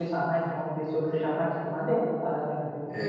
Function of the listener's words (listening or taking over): taking over